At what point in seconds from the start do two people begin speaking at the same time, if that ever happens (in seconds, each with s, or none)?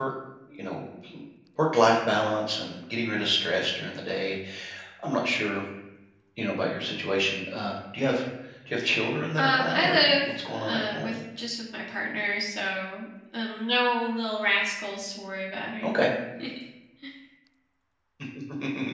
9.4 s